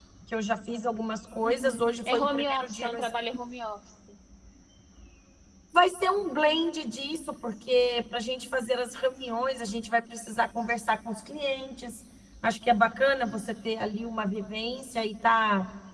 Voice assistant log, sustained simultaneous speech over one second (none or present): present